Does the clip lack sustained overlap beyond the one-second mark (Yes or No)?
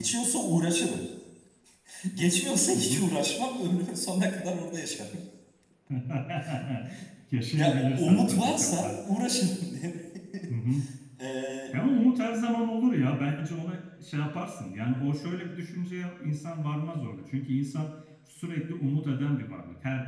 No